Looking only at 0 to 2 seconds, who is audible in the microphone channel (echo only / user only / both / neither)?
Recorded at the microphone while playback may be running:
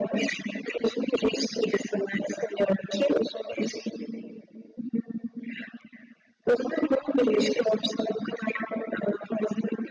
echo only